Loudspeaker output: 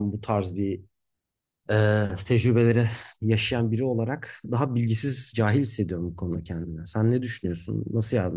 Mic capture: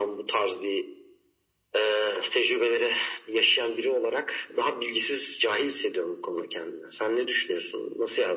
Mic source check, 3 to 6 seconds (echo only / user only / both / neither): echo only